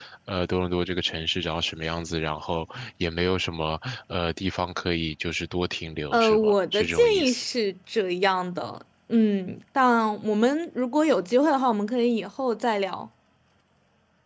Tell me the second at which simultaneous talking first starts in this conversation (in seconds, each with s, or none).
6.1 s